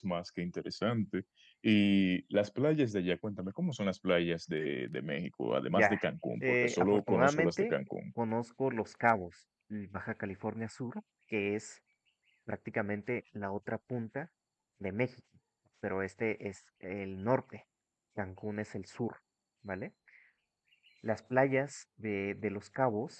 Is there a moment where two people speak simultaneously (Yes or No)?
Yes